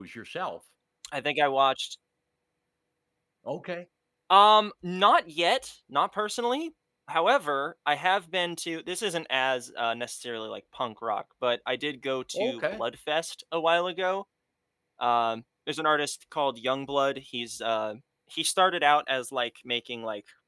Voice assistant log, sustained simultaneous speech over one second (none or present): none